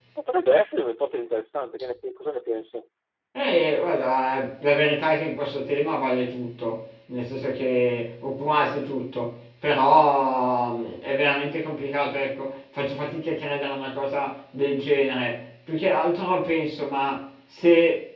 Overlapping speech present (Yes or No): No